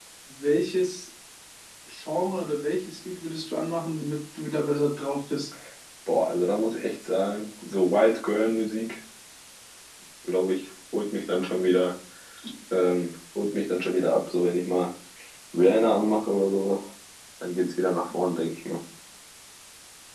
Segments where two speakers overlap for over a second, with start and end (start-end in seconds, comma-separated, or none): none